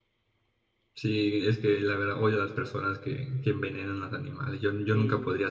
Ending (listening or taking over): taking over